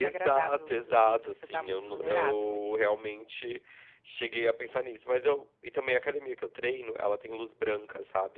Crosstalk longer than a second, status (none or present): present